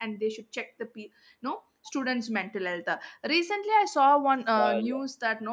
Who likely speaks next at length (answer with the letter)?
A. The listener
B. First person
B